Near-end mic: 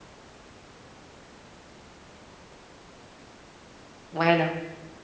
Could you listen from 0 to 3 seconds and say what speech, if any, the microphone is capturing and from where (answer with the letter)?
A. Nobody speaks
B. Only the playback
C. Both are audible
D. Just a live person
A